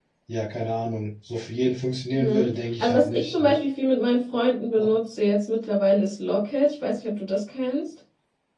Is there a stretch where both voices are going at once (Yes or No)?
Yes